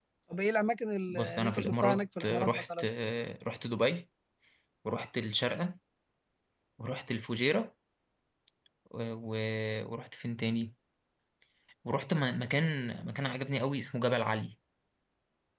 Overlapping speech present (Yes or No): Yes